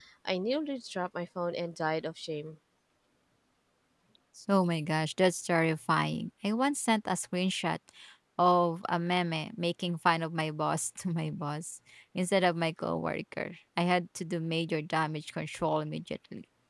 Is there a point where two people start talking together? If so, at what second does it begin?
none

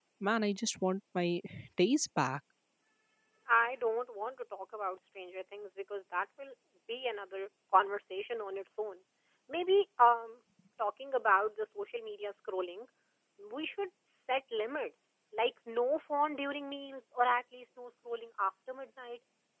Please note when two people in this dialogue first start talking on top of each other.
none

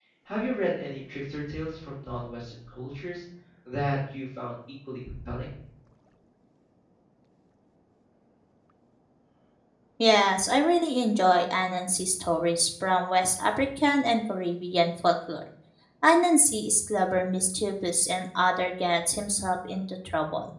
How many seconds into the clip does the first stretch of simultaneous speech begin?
none

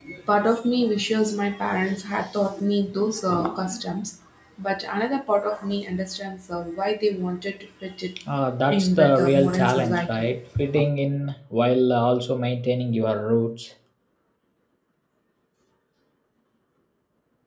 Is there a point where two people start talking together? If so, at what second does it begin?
8.7 s

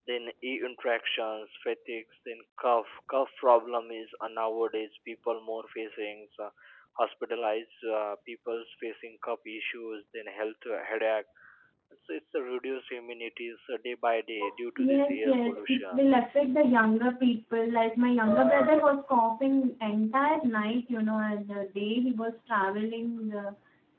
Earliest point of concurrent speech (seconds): 14.8 s

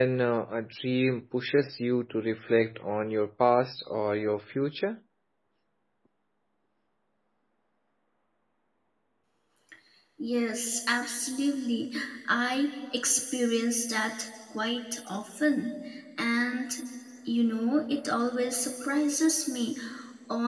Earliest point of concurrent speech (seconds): none

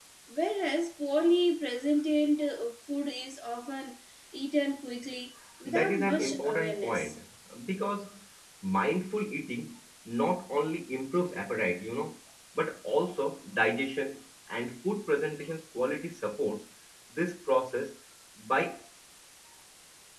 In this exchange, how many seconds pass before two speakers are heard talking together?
5.7 s

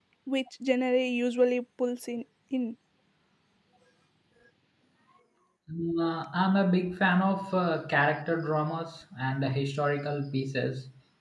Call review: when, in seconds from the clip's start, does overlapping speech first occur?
none

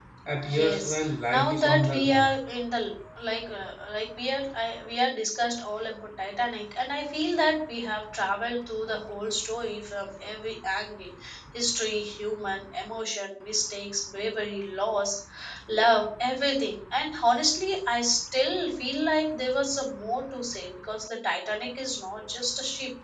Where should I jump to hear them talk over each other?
0.5 s

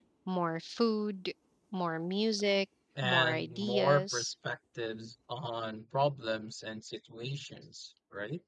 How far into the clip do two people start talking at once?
3.0 s

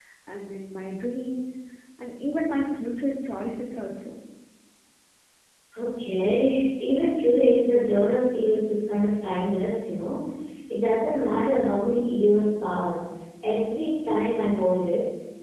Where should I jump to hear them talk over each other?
none

